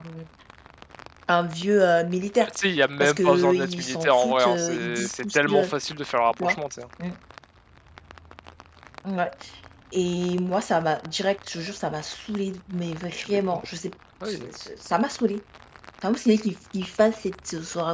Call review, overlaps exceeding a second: present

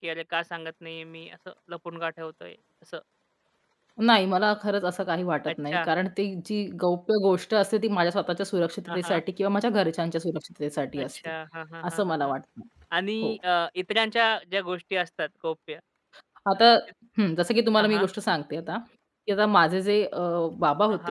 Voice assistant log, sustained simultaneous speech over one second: none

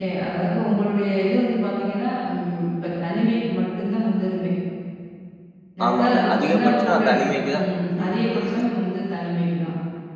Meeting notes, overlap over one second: present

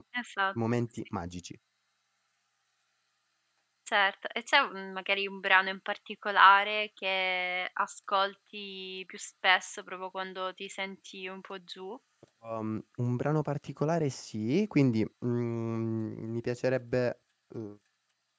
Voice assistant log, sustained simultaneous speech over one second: none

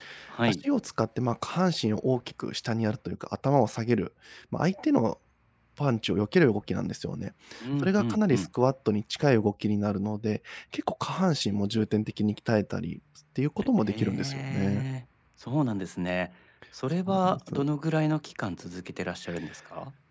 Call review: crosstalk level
present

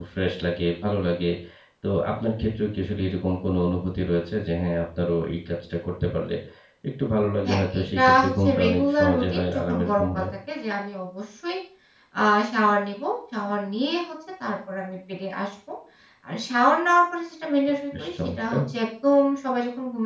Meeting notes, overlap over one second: present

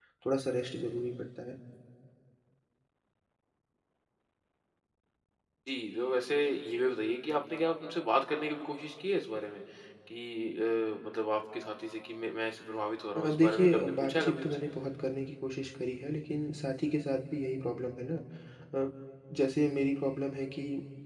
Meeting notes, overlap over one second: present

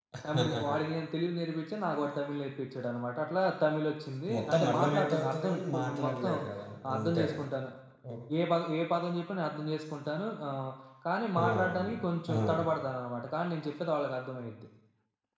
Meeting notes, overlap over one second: present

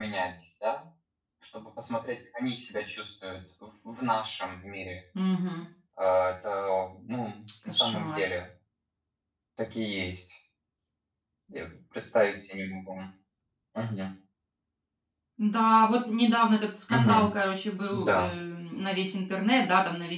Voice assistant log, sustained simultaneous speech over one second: none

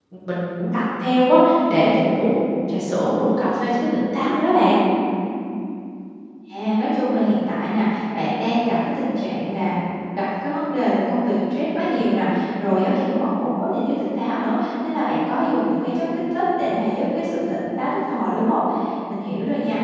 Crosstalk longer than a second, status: none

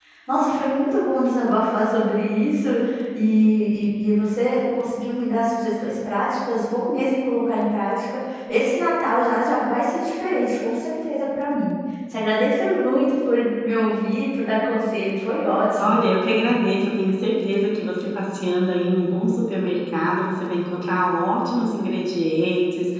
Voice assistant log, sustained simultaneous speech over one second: none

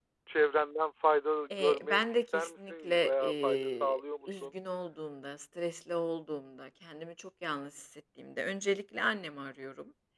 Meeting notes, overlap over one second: present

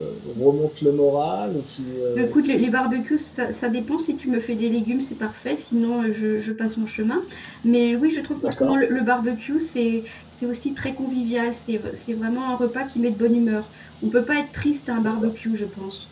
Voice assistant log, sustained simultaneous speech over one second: none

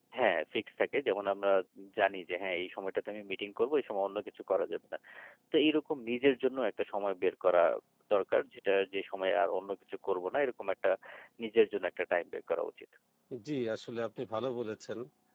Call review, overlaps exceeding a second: none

